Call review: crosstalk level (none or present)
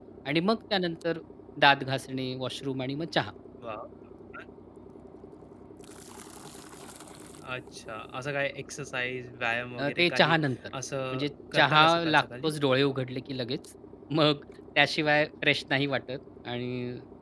present